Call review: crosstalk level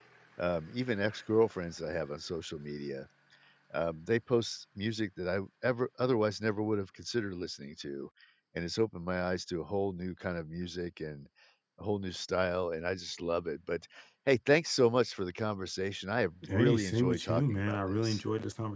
present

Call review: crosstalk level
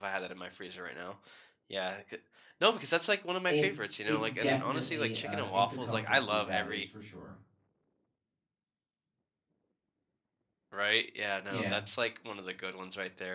present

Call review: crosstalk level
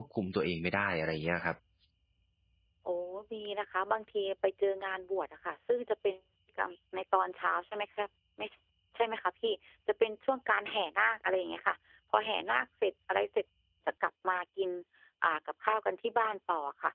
none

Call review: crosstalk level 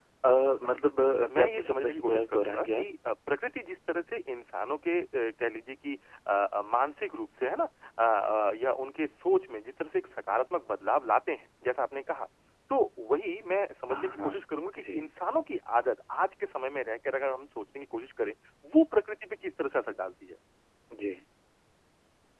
present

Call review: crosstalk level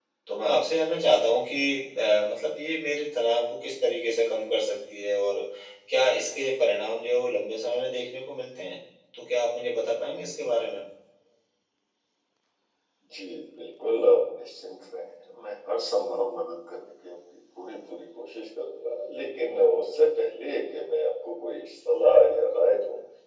none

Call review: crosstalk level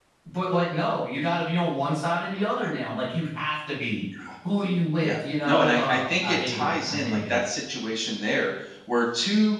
present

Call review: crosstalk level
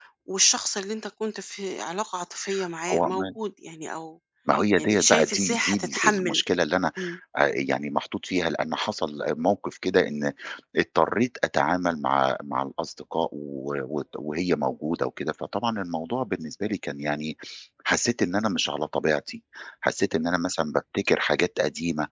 present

